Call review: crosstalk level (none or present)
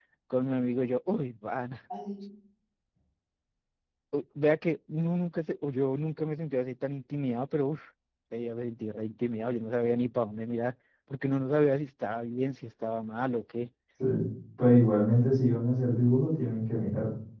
none